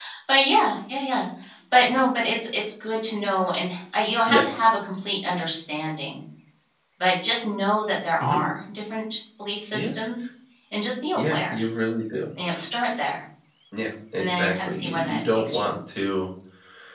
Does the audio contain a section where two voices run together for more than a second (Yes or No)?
Yes